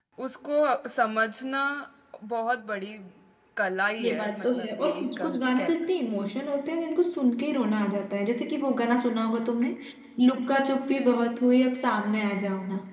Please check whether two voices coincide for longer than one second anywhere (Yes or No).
Yes